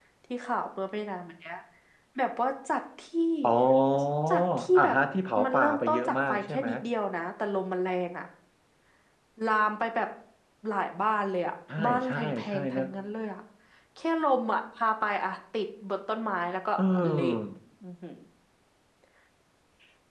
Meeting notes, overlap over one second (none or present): present